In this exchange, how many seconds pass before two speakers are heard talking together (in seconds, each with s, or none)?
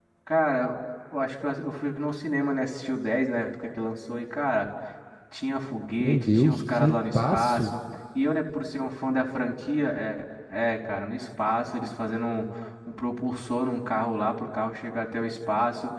6.0 s